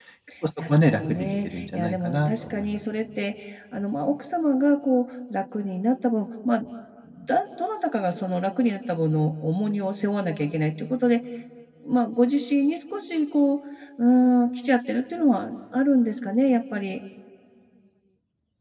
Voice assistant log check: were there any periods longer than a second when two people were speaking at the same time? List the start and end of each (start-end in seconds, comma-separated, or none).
0.7-2.8